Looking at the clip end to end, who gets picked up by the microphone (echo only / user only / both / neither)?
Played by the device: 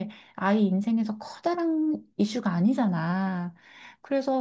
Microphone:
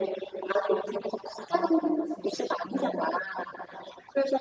both